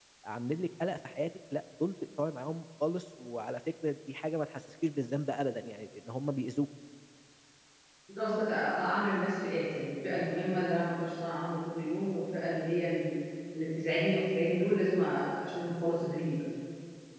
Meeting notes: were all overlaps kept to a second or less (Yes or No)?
Yes